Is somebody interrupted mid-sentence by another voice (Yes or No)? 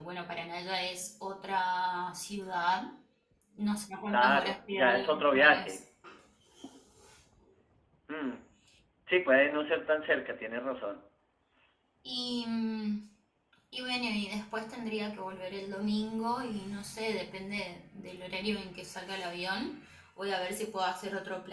Yes